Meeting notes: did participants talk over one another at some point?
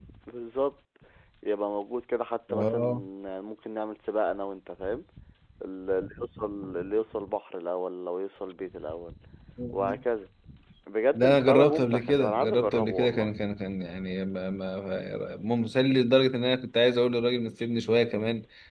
Yes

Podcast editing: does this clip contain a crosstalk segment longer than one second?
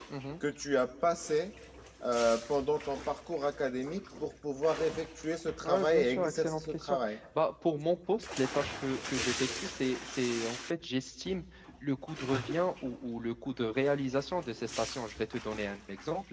Yes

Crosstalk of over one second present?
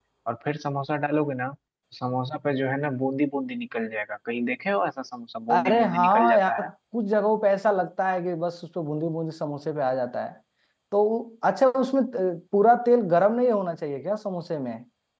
Yes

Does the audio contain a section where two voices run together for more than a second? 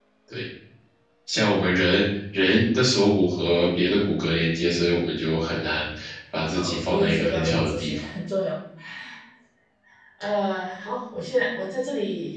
Yes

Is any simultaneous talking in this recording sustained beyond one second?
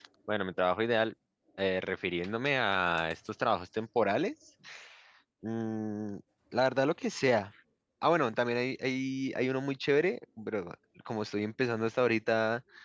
No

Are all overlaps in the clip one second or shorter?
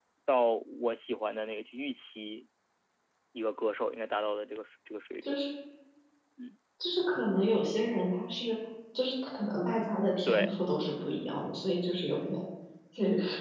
Yes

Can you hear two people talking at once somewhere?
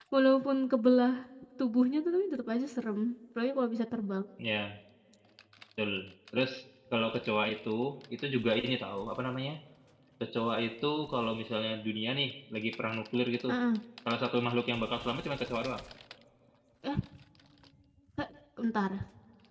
No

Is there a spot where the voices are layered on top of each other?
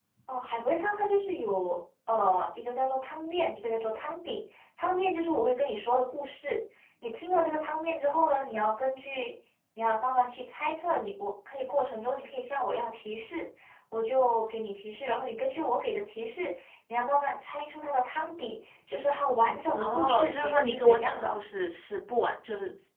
Yes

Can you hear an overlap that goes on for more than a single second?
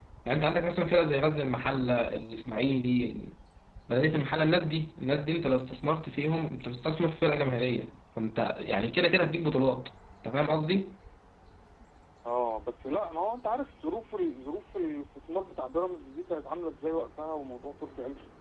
No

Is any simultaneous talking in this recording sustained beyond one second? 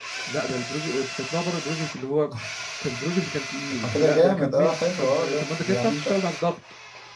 Yes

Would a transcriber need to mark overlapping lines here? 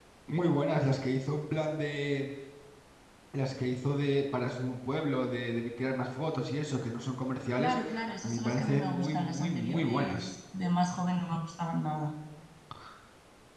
Yes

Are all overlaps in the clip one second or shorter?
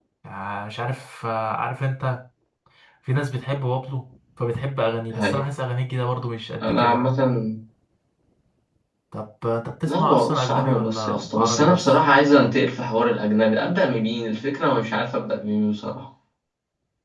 No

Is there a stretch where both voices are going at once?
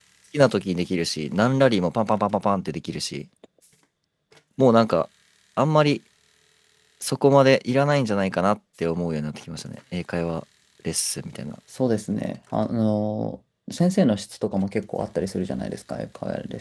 No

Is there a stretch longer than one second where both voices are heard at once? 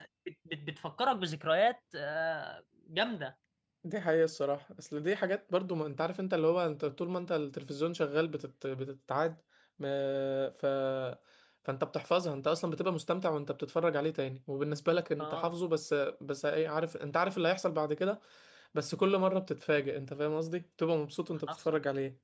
No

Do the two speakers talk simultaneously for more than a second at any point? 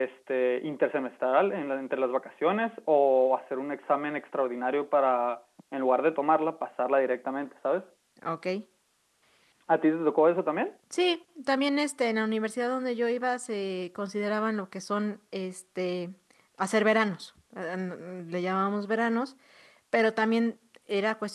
No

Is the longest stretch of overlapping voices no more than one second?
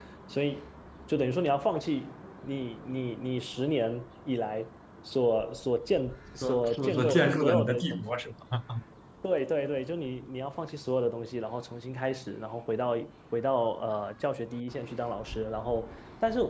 No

